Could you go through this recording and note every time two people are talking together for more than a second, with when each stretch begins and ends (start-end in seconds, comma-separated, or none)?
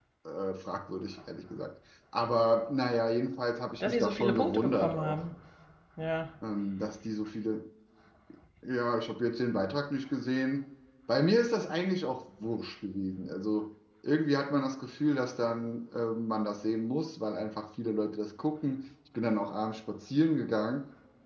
3.8-5.2